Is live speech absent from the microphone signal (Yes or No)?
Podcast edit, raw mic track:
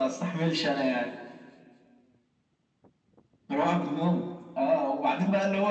Yes